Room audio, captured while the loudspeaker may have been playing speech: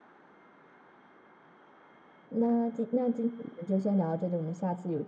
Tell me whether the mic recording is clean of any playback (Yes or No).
Yes